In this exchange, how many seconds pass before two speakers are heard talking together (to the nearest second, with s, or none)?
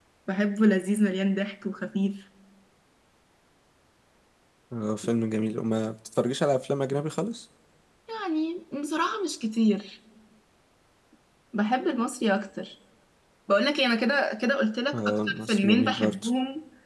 15 s